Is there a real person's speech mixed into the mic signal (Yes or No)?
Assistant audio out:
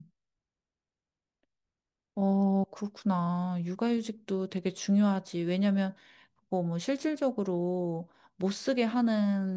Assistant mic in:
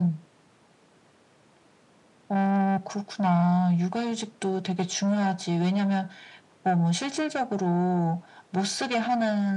No